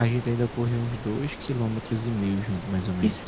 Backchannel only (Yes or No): Yes